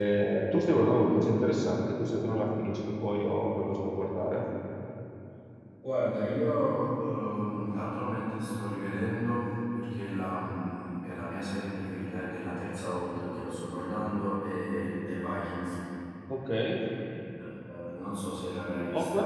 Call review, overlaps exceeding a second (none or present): none